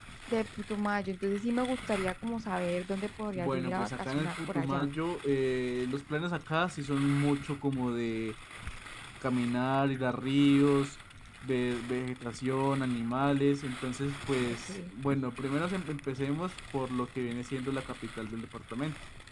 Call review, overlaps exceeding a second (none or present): present